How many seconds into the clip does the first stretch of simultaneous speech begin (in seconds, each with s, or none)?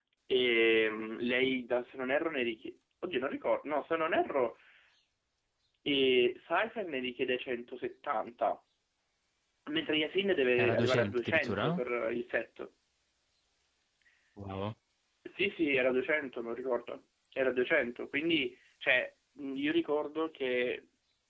10.6 s